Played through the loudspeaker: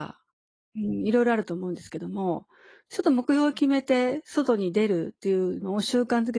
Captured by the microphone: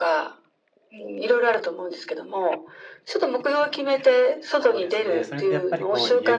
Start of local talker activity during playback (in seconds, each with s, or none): 4.5 s